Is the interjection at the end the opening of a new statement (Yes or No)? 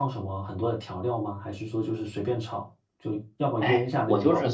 Yes